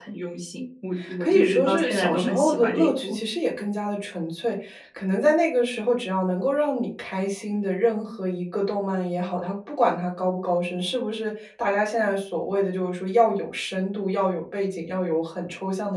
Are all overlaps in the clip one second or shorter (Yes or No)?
No